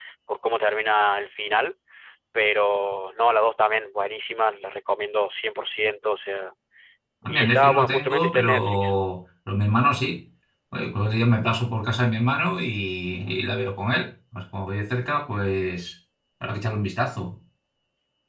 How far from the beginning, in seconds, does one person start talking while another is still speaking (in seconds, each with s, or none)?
7.3 s